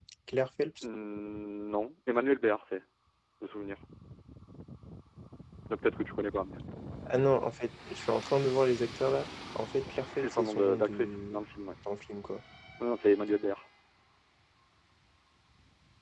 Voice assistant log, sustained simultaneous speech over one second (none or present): present